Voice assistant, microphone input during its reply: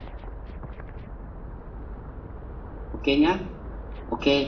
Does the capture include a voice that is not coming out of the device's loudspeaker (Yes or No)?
Yes